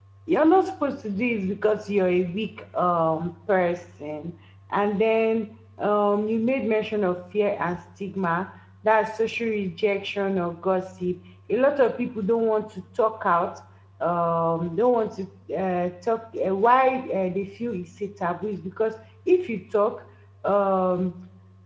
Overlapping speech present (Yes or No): No